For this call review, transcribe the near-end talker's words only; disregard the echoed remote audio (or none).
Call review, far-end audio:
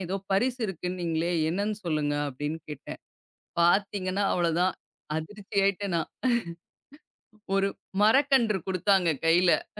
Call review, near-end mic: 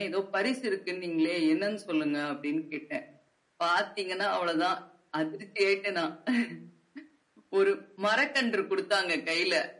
none